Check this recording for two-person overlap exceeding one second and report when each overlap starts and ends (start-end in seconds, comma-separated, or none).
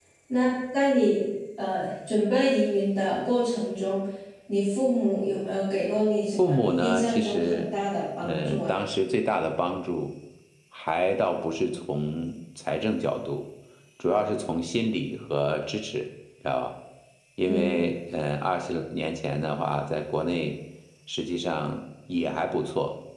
6.4-7.7